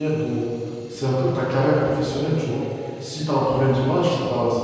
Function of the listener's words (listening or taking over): listening